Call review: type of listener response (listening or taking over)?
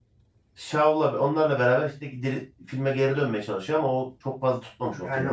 taking over